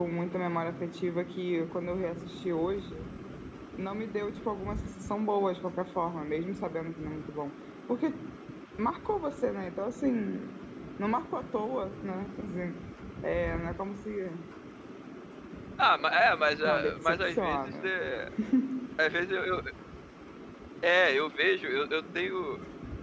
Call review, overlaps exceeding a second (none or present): present